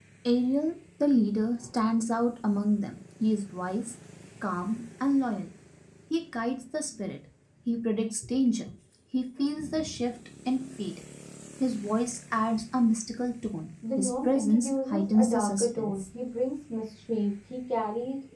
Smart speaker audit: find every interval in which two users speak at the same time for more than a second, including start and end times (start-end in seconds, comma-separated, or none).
14.0-15.9